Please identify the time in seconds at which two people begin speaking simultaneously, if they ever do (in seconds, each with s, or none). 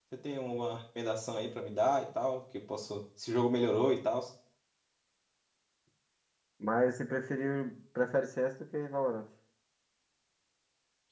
none